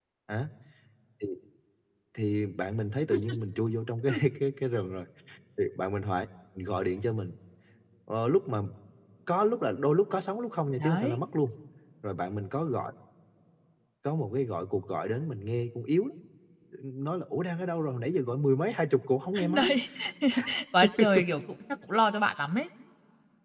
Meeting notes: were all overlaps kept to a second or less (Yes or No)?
Yes